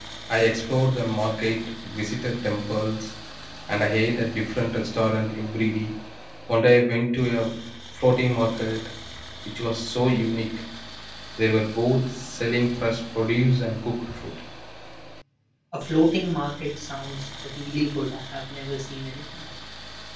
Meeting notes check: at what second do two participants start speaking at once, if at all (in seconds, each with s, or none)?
none